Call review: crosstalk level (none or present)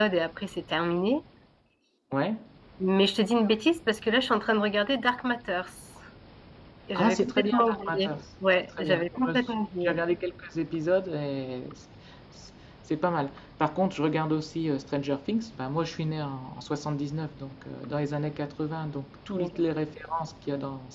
present